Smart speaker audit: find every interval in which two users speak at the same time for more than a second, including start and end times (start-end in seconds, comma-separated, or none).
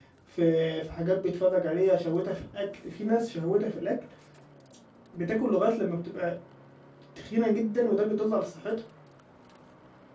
none